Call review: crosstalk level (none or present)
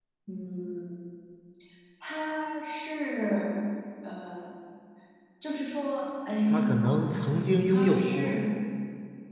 present